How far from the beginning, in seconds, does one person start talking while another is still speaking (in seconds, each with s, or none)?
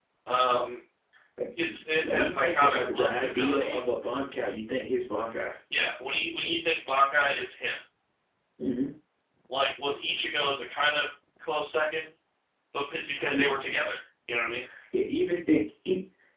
1.7 s